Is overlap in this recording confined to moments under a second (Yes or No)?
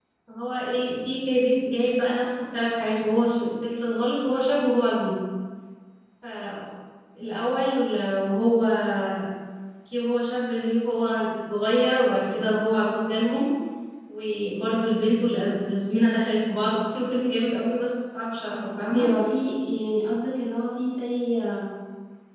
Yes